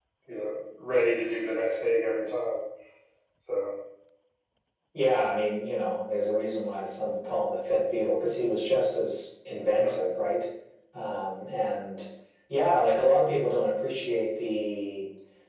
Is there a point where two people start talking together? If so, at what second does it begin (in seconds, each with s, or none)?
none